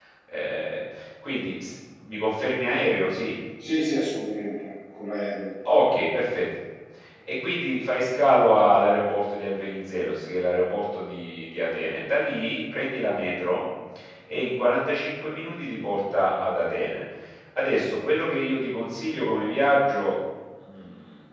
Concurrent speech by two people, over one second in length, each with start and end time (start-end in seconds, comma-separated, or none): none